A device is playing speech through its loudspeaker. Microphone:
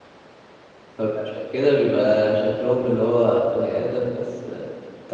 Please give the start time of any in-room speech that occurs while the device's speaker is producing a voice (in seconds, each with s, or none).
0.9 s